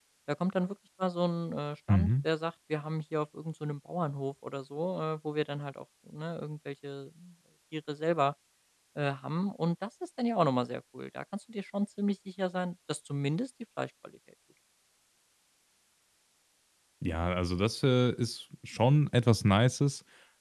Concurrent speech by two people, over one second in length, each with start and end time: none

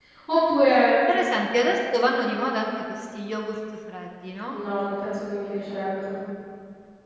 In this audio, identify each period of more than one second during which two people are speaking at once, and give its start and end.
none

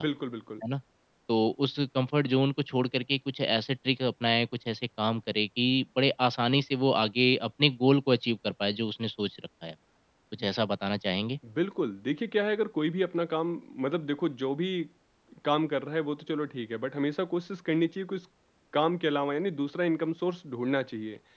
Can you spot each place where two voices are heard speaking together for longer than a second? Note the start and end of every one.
none

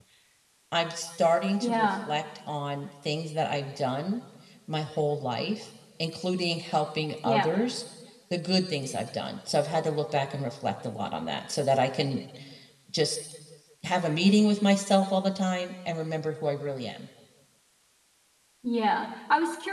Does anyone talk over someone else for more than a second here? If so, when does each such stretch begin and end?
none

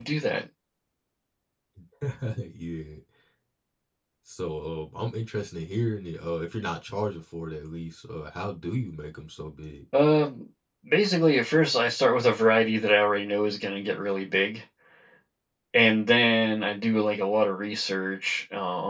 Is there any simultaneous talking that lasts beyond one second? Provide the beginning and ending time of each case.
none

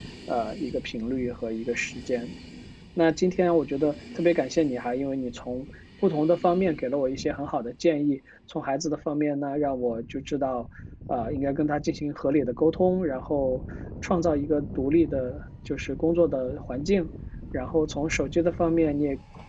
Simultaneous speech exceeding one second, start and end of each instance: none

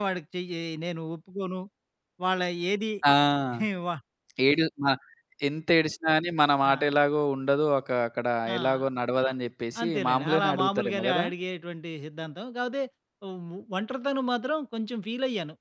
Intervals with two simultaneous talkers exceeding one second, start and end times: 9.8-11.3

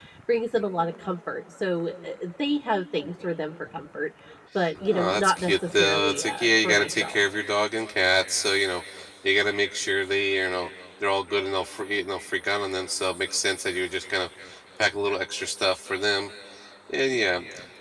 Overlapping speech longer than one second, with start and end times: 4.9-7.2

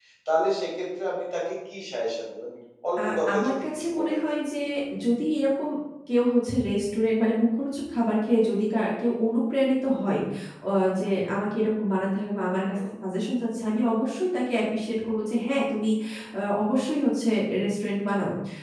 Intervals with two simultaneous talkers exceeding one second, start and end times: 3.0-4.2

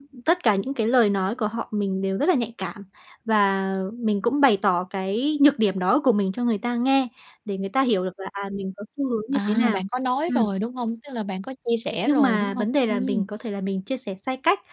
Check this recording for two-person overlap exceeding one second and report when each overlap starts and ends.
12.0-13.3

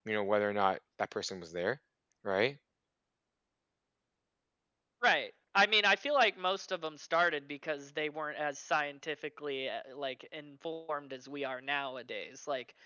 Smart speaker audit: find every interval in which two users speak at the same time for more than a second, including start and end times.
none

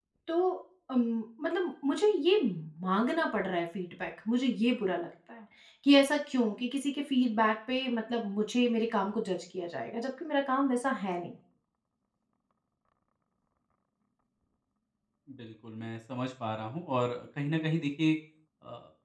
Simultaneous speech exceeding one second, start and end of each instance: none

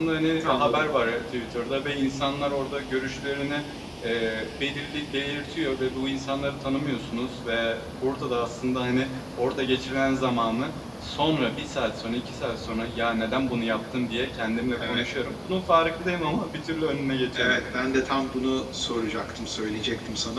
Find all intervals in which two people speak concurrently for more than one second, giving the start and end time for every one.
none

